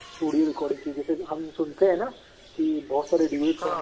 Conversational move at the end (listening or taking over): listening